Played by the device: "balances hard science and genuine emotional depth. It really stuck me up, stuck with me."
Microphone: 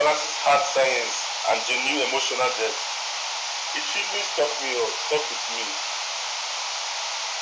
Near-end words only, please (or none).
none